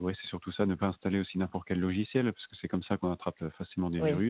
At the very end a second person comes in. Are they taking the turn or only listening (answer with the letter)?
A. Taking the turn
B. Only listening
A